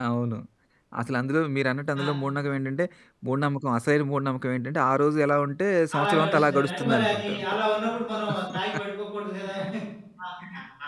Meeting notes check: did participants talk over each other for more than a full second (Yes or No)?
Yes